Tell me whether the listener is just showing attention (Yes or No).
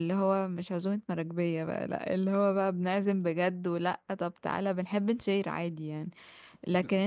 Yes